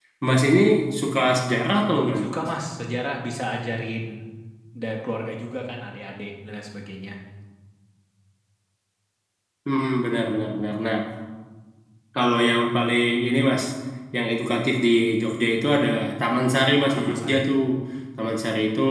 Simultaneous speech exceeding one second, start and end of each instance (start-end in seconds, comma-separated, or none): none